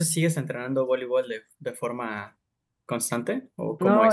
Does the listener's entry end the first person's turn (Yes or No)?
Yes